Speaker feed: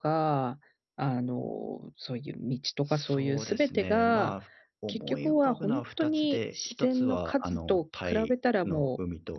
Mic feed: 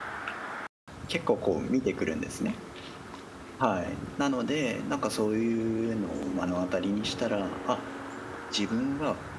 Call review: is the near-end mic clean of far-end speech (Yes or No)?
Yes